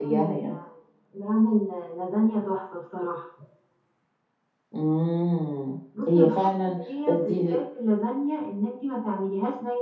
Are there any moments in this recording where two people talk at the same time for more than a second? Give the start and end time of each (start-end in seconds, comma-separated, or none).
6.1-7.6